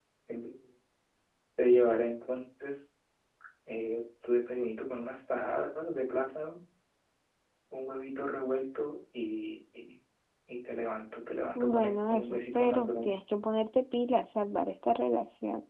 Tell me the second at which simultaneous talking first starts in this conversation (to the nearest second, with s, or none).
12 s